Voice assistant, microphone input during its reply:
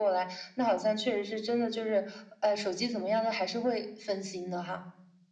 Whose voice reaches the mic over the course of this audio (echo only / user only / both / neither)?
echo only